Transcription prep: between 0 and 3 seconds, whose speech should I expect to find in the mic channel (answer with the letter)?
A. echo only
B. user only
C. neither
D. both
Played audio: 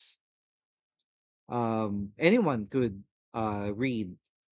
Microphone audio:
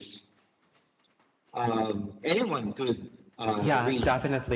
A